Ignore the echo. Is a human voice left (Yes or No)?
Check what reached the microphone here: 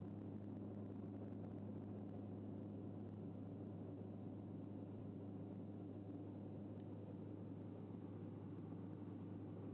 No